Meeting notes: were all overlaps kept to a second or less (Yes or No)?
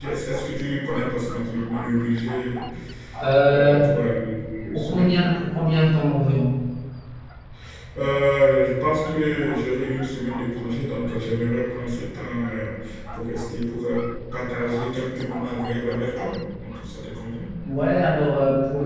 Yes